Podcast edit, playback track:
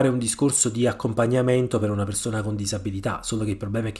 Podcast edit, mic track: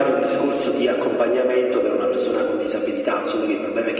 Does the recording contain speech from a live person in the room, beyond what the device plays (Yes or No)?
No